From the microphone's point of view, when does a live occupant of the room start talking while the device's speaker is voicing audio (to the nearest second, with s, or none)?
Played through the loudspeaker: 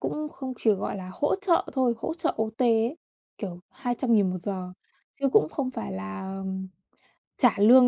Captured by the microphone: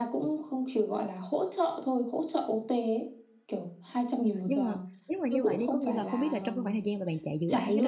4 s